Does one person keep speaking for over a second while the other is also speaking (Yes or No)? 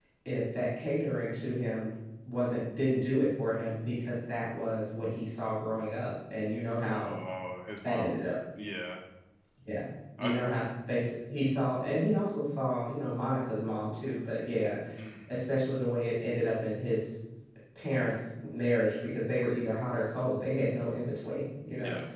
No